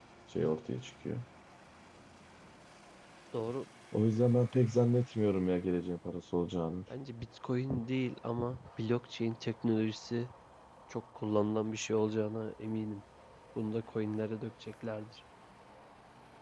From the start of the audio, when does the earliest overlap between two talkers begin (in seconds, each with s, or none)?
none